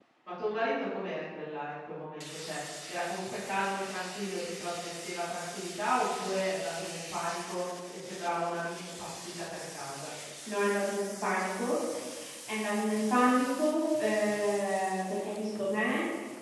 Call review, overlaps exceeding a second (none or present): none